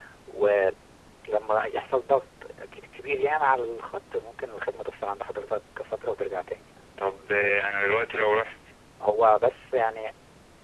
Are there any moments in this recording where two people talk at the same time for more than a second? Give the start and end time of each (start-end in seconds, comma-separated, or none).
none